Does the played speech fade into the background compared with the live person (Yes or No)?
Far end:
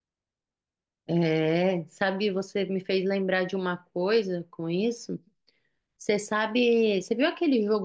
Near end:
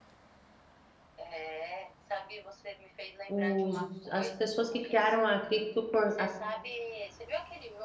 Yes